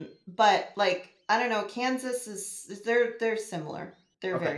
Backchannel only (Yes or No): No